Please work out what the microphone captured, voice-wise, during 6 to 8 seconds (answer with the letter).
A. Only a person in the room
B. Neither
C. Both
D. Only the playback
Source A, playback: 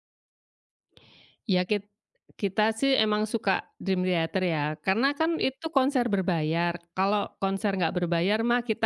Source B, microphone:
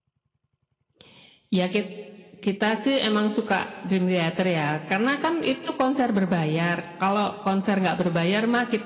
D